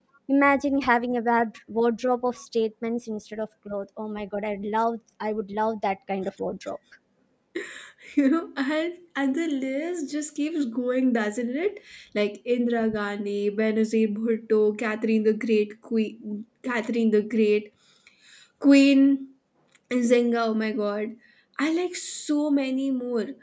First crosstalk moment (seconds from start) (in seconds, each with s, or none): none